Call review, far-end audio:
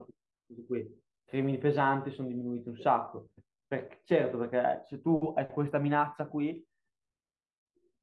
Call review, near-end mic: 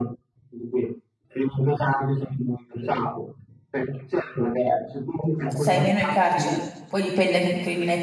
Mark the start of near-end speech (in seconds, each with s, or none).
5.5 s